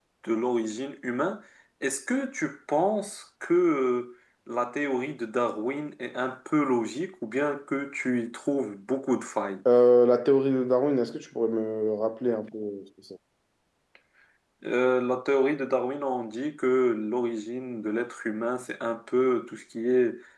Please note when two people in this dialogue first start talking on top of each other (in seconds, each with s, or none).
none